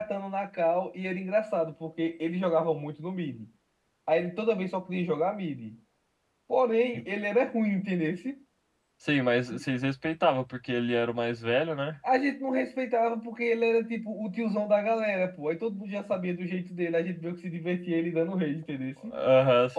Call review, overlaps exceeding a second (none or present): none